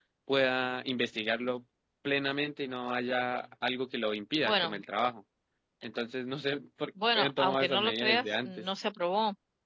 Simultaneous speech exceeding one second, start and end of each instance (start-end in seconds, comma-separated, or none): 7.2-8.7